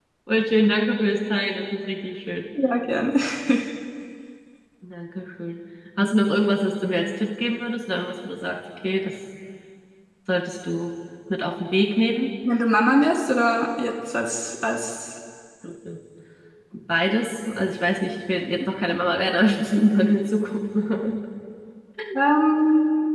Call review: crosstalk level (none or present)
none